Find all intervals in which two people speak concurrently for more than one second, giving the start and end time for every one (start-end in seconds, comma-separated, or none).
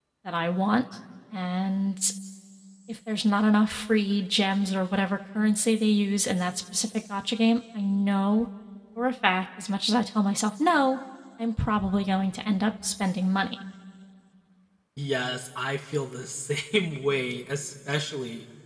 none